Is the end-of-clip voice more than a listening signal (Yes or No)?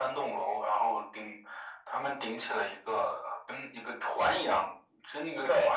No